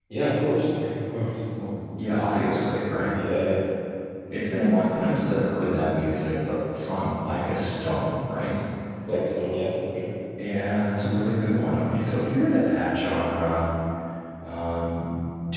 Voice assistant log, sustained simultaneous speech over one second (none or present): none